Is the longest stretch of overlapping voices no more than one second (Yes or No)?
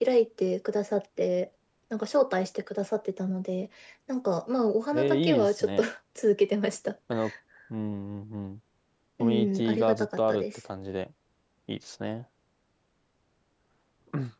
No